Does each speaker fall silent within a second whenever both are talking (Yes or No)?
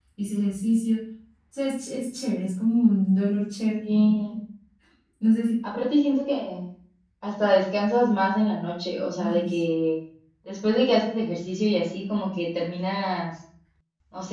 Yes